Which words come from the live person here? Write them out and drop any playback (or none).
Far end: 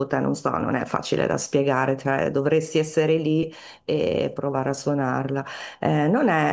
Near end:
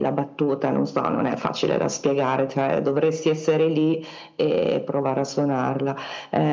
none